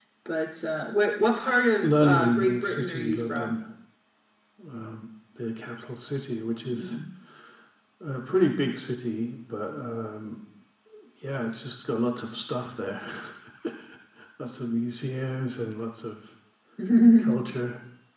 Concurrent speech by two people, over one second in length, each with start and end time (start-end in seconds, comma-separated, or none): 1.8-3.6